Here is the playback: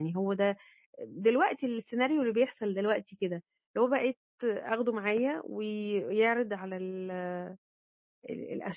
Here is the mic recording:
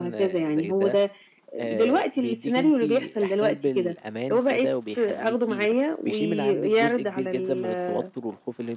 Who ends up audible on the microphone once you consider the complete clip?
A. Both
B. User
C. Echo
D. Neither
A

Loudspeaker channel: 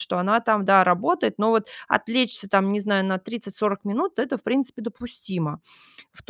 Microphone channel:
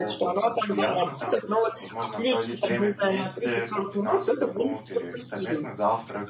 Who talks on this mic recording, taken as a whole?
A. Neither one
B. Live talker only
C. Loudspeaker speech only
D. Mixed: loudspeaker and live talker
D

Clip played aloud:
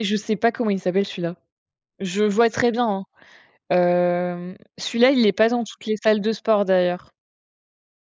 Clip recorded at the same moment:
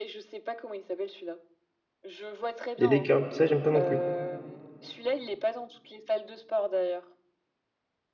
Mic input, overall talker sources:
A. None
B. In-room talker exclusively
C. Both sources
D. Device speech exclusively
C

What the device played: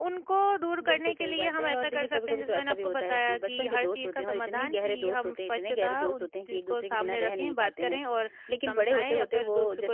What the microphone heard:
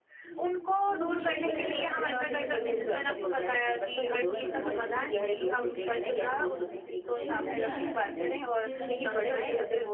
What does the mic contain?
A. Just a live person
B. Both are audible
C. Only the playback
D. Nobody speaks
B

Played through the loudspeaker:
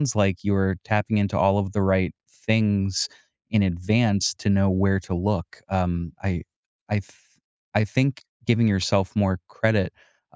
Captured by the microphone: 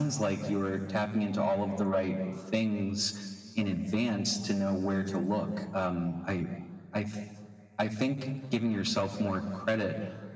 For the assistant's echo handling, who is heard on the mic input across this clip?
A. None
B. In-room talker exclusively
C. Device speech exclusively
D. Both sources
C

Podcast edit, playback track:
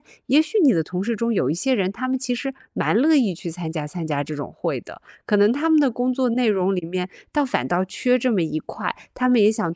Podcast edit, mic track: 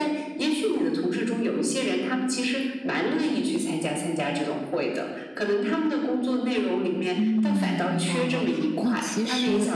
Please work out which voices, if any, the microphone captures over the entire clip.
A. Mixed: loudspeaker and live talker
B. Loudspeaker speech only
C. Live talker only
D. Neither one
A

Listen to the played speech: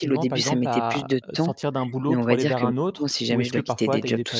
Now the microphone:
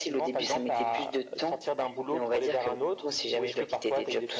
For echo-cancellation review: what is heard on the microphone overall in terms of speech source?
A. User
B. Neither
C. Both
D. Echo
D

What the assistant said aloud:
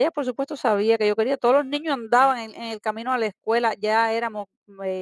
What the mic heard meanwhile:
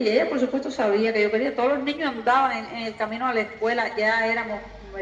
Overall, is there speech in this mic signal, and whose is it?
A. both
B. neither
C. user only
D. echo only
D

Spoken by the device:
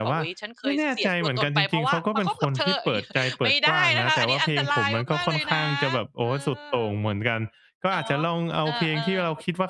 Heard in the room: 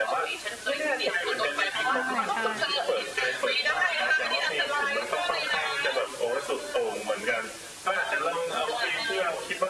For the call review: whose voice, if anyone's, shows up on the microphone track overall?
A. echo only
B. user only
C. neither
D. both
D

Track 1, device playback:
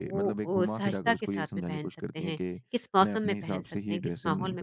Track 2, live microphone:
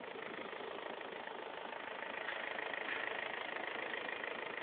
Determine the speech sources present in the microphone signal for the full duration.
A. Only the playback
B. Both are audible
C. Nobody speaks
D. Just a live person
C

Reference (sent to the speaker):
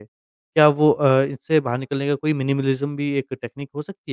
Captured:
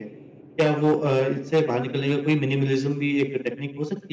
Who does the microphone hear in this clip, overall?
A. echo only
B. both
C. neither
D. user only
A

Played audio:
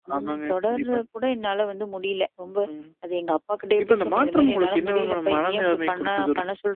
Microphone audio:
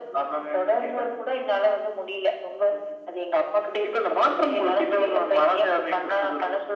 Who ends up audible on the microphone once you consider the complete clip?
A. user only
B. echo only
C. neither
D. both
B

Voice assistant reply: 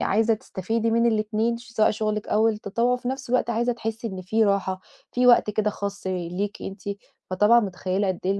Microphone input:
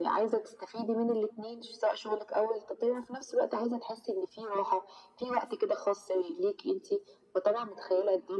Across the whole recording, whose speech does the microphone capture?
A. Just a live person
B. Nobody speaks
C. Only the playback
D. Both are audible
C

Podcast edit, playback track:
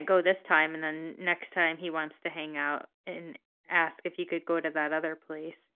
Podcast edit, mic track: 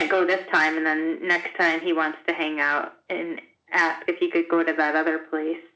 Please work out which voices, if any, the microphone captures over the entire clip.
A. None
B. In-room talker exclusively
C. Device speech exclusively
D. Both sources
C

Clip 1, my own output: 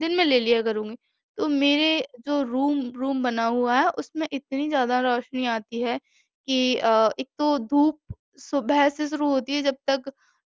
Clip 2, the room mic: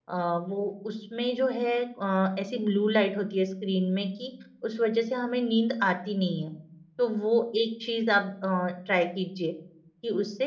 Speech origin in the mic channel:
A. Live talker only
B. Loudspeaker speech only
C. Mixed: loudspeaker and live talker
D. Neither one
A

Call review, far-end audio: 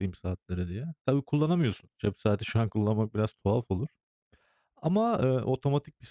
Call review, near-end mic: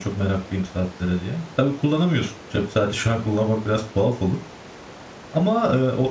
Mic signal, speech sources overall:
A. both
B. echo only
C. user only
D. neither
B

